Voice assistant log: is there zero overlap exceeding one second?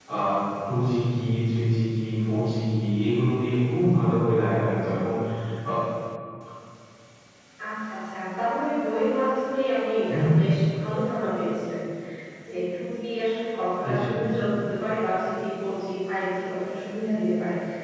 Yes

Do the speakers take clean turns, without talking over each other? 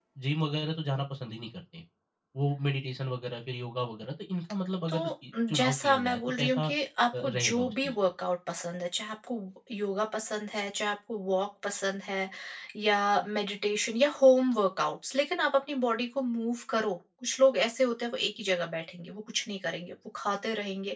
No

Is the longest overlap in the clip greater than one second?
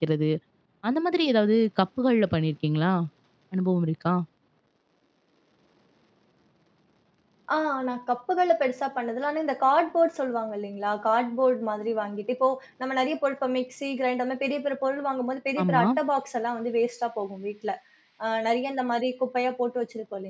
No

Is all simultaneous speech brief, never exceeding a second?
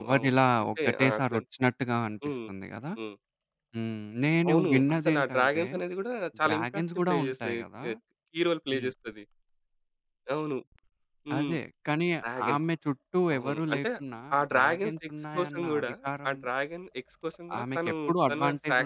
No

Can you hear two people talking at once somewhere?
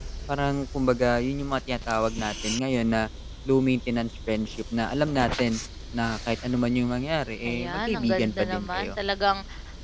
Yes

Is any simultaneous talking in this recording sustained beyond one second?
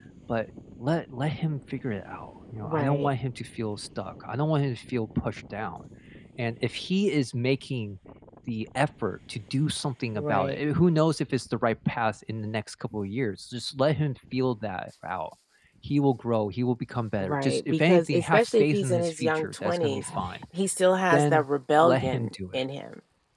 Yes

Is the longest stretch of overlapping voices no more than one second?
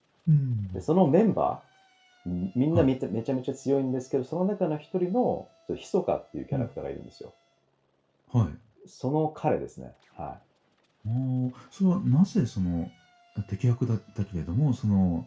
Yes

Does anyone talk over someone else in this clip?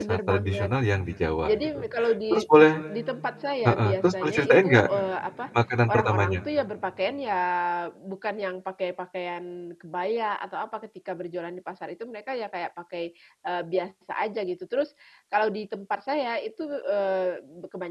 Yes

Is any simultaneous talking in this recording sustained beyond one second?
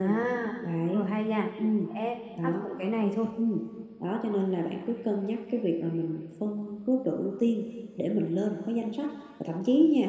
No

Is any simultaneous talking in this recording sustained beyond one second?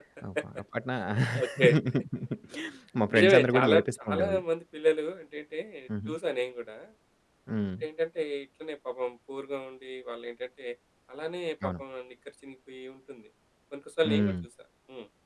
Yes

